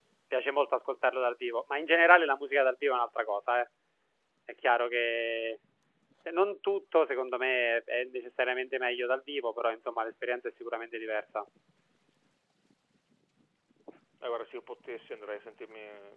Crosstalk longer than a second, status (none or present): none